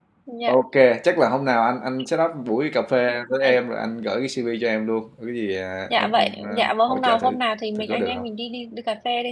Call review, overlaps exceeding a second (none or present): present